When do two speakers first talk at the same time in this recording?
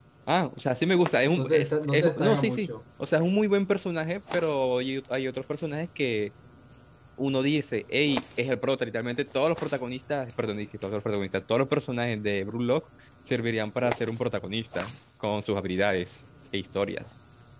1.4 s

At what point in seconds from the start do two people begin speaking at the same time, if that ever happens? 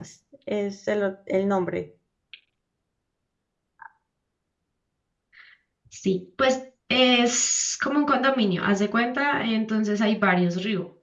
none

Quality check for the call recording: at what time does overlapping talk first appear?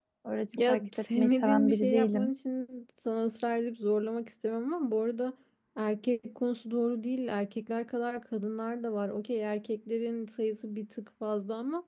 0.5 s

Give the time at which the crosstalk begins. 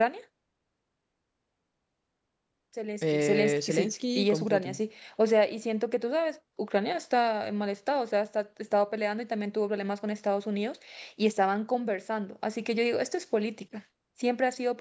3.0 s

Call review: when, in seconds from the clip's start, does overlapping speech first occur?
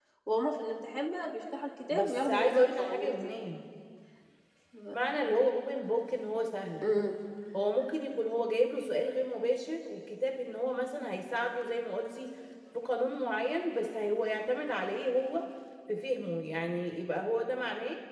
1.9 s

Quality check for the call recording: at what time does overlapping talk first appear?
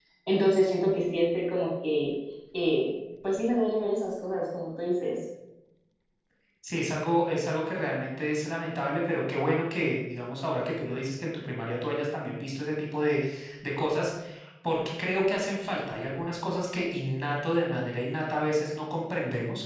none

